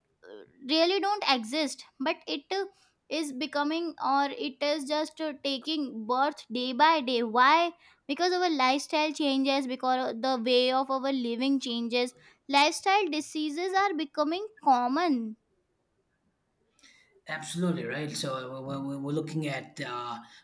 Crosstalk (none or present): none